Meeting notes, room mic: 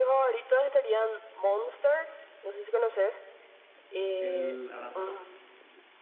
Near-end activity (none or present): present